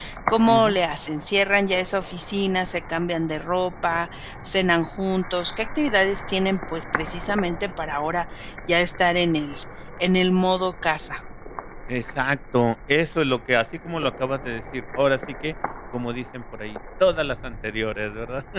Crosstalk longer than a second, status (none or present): none